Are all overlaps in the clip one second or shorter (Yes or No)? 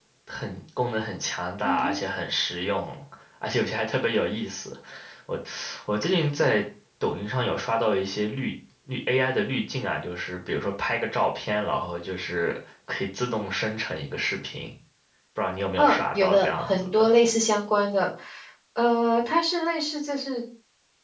No